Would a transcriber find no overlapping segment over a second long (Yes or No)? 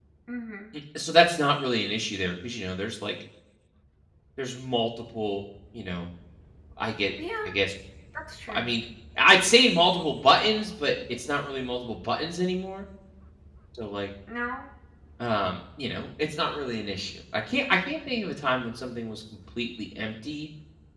Yes